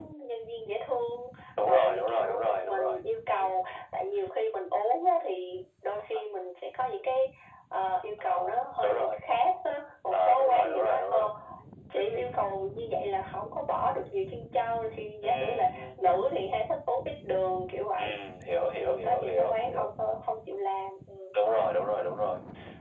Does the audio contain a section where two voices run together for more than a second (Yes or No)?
Yes